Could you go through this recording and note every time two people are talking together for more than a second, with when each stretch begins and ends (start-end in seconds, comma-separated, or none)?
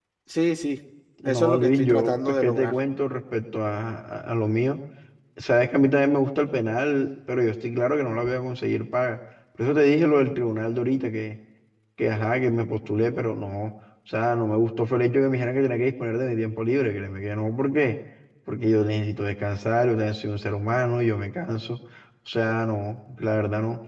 1.2-2.7